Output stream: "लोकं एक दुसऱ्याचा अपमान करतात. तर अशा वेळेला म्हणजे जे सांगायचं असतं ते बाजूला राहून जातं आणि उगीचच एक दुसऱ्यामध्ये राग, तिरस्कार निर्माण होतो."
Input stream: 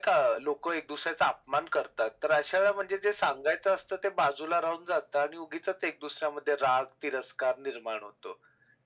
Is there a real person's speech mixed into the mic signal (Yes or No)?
No